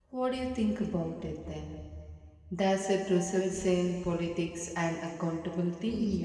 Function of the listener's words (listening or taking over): taking over